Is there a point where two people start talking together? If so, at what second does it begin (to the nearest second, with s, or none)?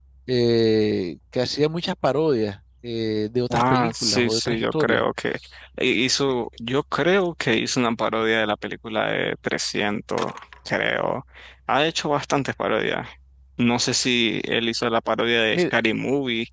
4 s